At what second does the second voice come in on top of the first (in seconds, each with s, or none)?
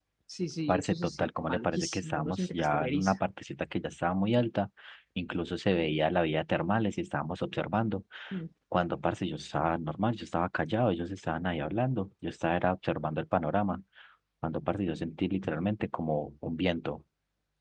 0.7 s